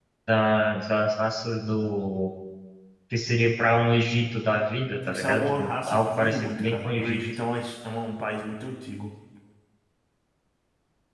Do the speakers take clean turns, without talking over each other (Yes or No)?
No